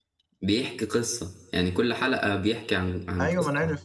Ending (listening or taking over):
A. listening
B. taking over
B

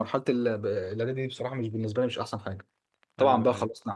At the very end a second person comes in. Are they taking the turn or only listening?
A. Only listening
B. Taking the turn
A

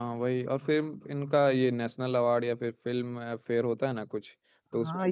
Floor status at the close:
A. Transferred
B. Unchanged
A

